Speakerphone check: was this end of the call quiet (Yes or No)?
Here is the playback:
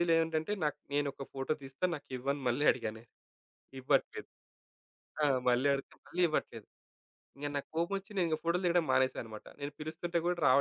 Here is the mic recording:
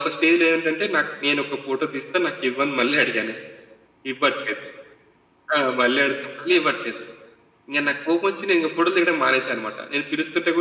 Yes